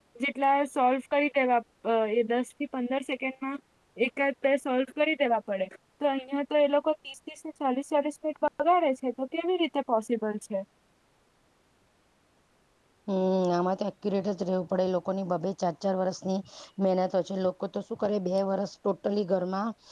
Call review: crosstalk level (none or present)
none